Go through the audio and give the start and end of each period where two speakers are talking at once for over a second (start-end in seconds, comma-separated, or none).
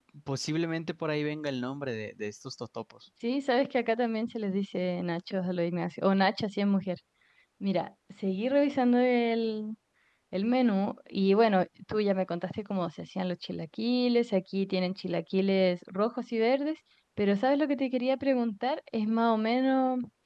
none